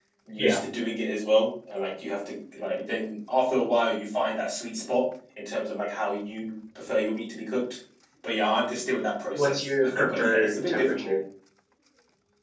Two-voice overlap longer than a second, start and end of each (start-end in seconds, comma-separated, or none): 9.4-11.2